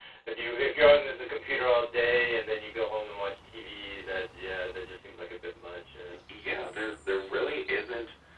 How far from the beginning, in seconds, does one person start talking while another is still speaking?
none

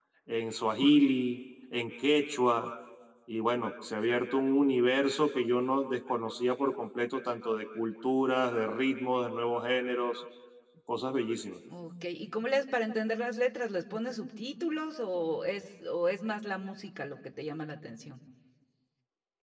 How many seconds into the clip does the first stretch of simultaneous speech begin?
none

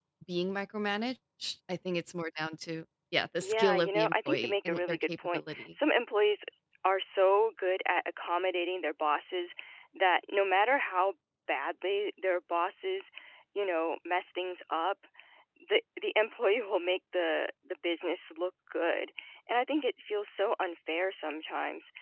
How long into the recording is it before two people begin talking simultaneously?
3.4 s

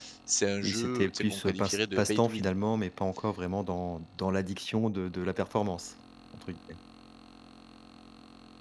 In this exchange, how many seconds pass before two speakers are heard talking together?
0.6 s

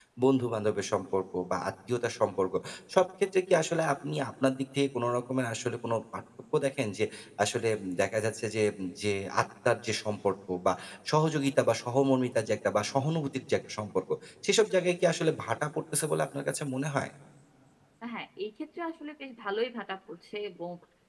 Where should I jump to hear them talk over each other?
none

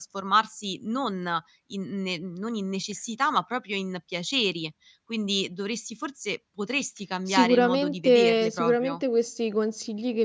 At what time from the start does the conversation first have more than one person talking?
7.3 s

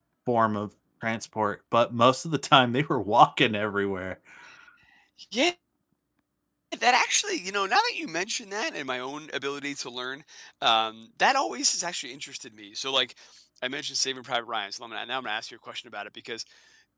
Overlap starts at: none

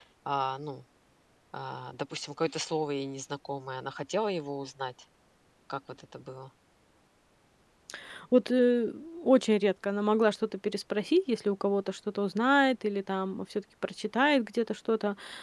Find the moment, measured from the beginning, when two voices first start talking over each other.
none

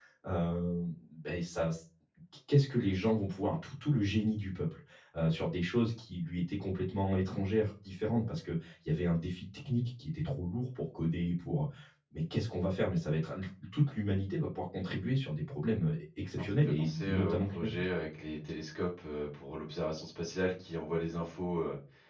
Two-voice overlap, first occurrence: 16.4 s

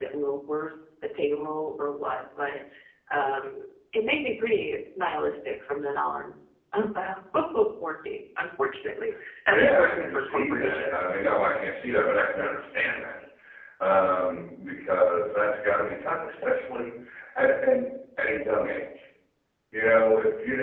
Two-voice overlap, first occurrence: 9.5 s

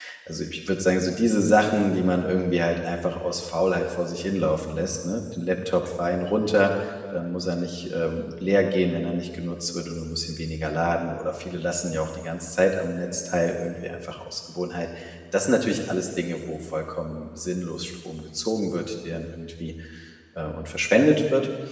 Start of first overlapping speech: none

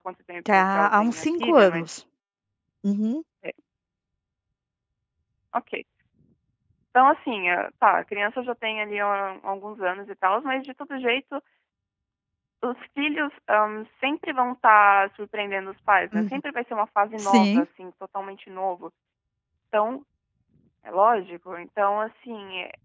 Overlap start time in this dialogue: 0.5 s

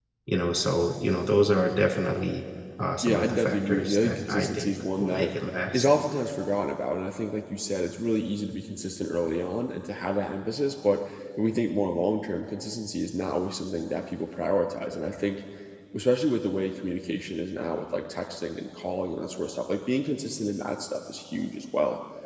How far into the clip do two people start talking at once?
3.0 s

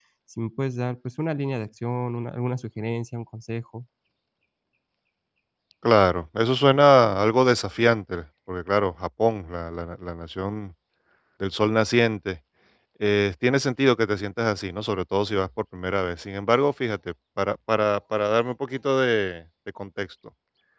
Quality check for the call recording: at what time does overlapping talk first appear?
none

